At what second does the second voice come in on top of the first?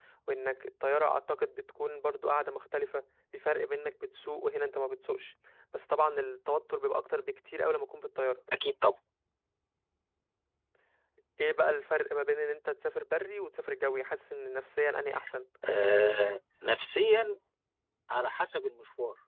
none

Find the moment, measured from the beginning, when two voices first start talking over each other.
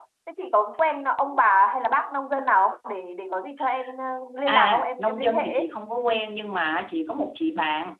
4.5 s

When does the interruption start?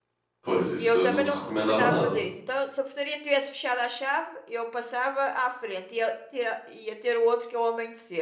0.8 s

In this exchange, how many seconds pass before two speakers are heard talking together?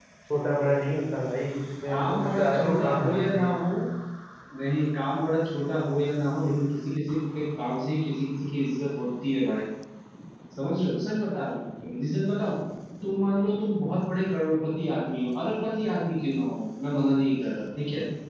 1.9 s

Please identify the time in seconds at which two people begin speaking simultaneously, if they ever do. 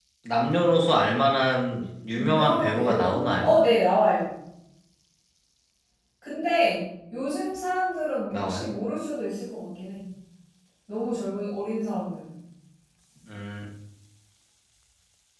2.2 s

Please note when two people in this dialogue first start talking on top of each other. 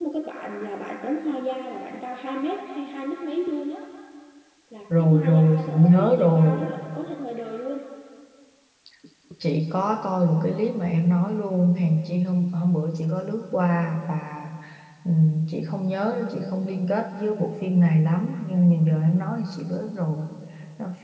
5.0 s

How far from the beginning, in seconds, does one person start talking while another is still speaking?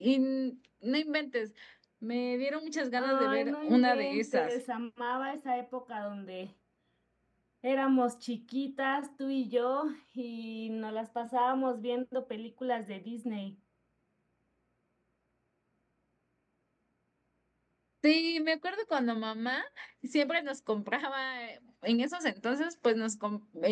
3.0 s

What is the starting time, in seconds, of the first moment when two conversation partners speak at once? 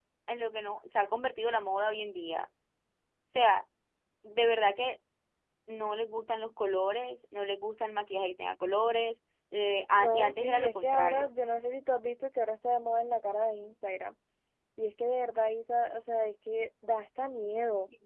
10.0 s

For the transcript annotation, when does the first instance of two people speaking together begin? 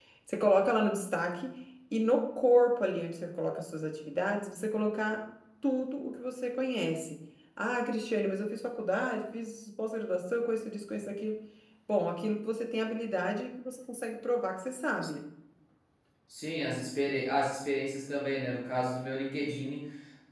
none

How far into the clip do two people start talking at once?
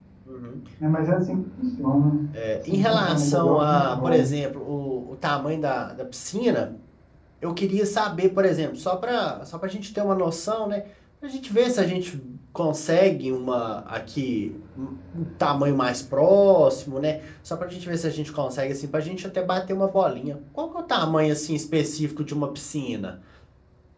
2.7 s

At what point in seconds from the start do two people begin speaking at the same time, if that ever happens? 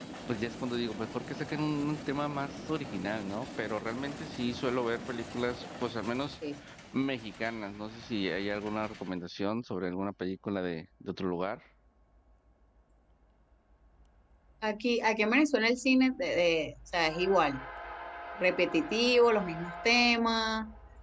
none

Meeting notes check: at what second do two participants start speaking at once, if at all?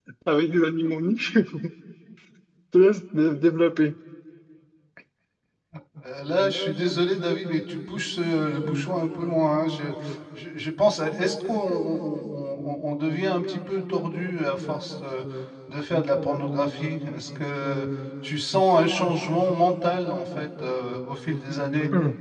none

